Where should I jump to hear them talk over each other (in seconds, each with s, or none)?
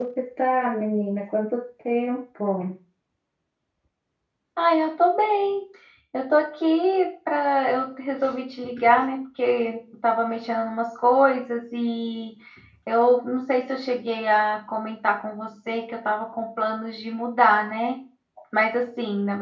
none